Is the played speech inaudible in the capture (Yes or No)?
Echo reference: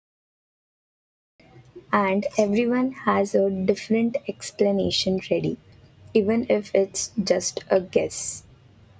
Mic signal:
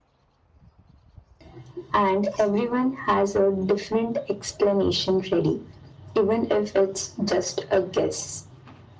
No